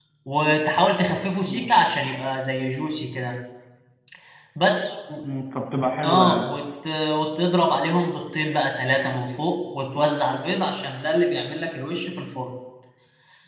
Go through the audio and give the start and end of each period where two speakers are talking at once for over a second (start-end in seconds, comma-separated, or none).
none